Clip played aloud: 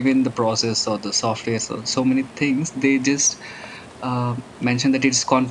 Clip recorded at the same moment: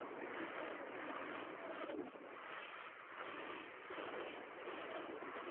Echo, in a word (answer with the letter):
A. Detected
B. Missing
B